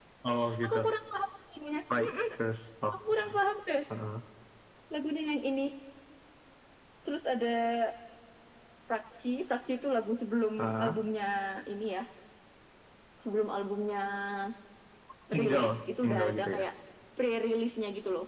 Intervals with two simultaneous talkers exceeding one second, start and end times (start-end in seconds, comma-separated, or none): 15.4-16.6